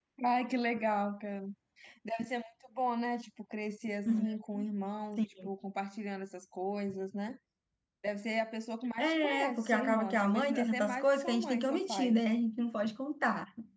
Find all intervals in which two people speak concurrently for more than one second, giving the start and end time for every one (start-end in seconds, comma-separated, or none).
9.0-12.1